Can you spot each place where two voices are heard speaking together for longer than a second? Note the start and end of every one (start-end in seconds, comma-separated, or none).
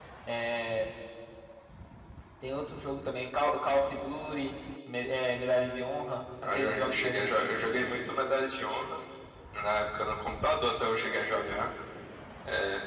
6.4-7.9